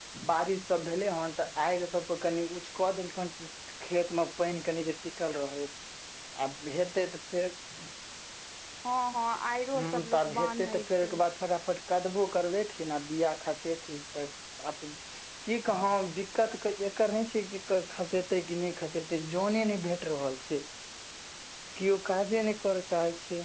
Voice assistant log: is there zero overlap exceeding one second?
No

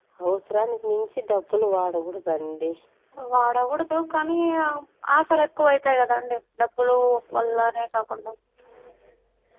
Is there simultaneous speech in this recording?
No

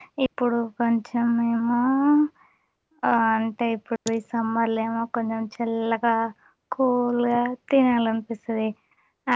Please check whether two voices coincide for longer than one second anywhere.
No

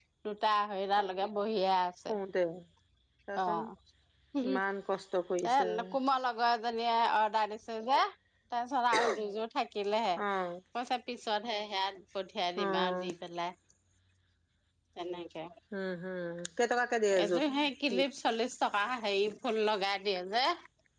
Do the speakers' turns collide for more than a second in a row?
No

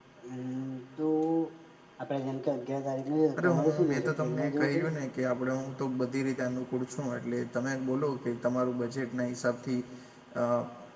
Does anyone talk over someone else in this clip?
Yes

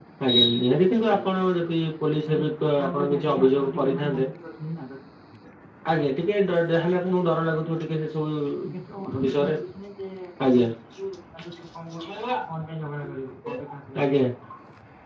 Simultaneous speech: Yes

